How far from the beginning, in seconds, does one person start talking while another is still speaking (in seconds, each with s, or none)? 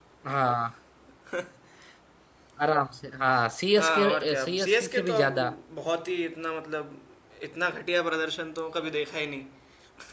3.8 s